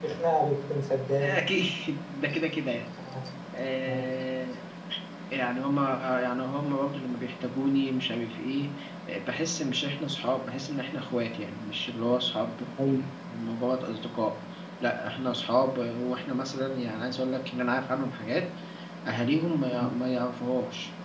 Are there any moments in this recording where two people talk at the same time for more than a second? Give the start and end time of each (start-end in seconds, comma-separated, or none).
none